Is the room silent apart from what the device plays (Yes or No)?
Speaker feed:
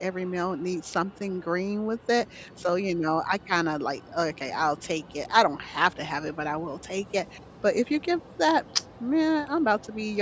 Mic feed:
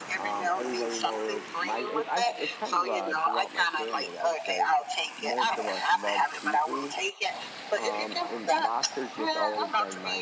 No